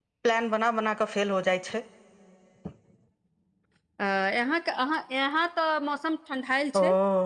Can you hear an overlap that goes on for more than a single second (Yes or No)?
No